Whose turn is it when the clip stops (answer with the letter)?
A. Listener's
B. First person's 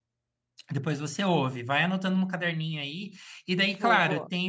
B